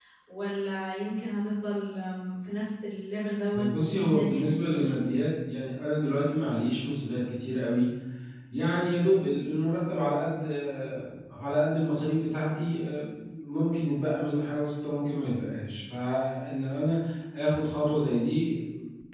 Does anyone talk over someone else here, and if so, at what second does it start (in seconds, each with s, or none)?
3.5 s